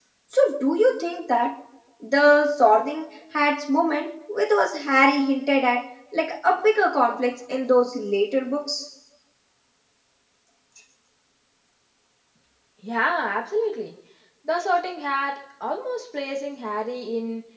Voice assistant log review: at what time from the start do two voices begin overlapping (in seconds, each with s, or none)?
none